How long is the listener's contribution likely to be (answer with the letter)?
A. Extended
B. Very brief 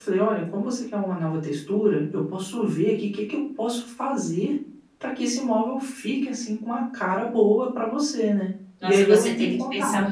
A